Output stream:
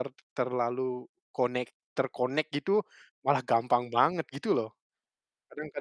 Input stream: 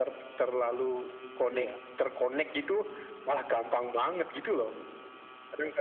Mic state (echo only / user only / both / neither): both